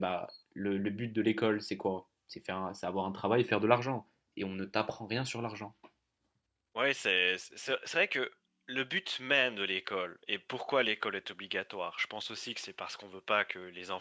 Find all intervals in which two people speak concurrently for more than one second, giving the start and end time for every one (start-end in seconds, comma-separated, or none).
none